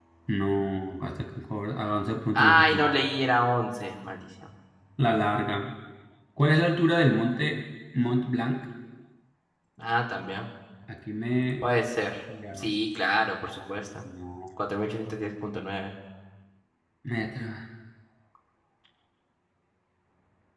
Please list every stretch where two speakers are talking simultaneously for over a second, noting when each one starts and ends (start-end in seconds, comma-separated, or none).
none